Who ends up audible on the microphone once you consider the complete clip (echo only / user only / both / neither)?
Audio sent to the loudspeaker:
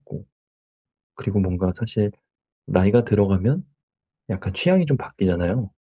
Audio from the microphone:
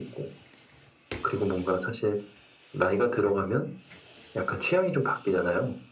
echo only